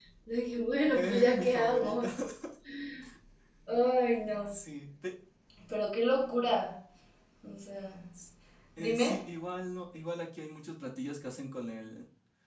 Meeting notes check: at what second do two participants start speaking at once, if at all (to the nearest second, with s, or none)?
1 s